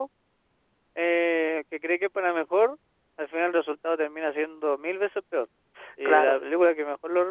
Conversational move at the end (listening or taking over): listening